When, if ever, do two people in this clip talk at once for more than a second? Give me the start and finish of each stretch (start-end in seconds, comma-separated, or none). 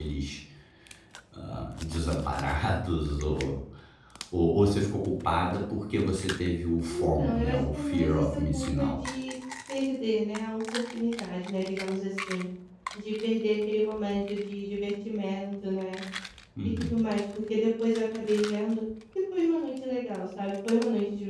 6.9-8.9